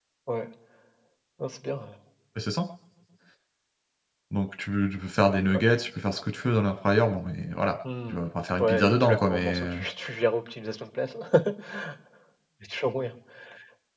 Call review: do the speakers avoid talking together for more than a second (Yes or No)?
No